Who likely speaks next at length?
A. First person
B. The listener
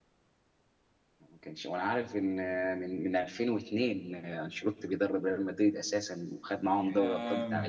B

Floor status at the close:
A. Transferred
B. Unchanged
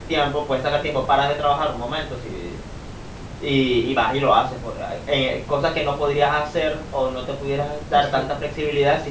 B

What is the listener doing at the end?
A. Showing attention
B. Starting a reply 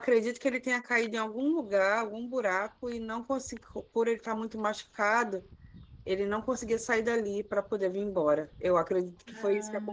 A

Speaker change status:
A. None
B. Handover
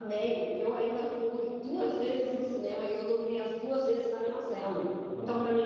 A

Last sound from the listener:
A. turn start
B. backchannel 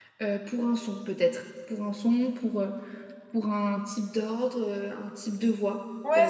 A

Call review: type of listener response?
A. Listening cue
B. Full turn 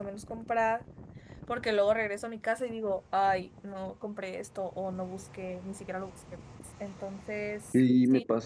B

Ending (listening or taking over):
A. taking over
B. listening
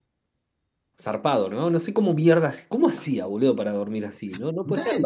B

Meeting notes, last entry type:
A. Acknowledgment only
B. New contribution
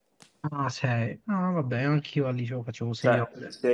B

